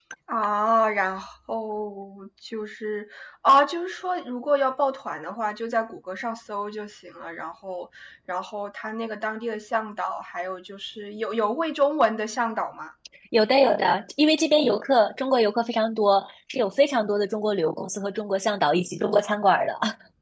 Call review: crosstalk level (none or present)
none